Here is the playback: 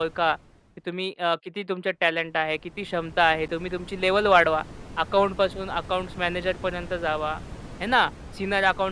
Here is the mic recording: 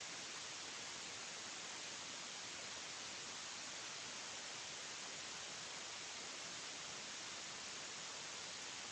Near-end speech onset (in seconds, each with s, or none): none